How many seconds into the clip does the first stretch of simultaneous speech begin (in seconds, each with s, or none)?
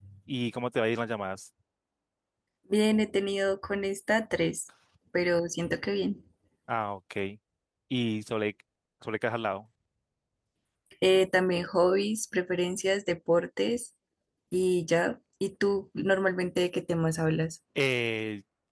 none